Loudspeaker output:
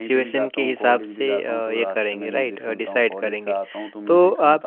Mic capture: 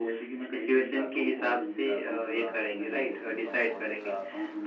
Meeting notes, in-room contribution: none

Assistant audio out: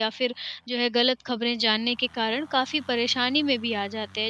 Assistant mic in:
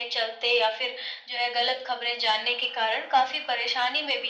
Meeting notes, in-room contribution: none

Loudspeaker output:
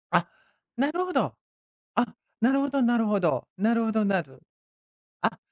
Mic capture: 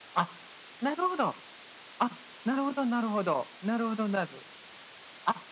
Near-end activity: none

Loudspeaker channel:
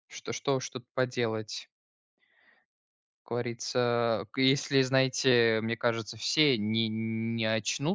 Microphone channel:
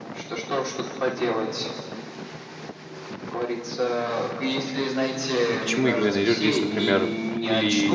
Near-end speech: present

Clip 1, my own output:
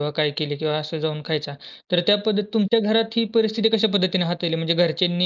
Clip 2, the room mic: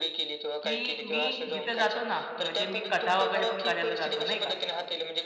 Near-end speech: present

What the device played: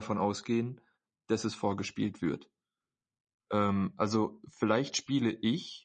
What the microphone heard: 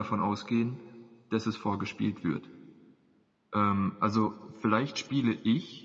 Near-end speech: none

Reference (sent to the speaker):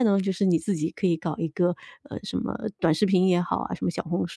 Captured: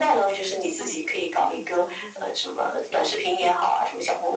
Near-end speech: present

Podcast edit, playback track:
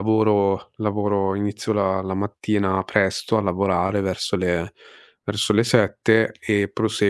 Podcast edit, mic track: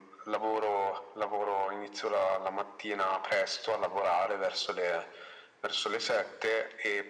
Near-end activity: none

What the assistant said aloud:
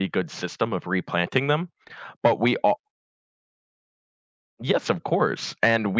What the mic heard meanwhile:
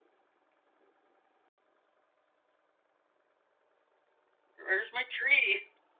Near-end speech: present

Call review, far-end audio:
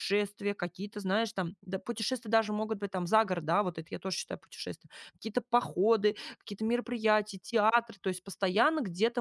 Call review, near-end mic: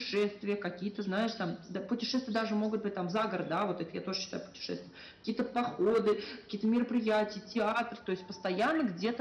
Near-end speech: none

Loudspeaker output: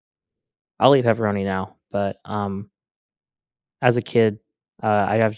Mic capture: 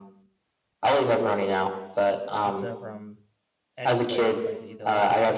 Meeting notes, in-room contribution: present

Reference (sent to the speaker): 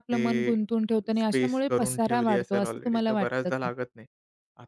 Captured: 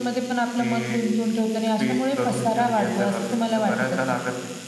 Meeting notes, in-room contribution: none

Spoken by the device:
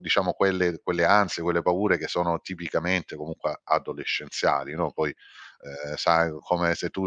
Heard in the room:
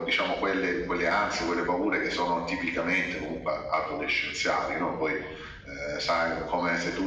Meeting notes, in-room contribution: none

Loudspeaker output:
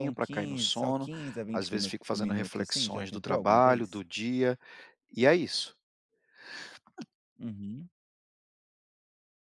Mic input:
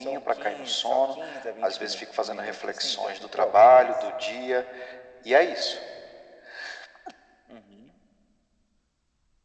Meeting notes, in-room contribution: none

